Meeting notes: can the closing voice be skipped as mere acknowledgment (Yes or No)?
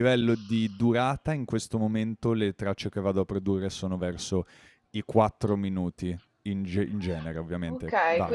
No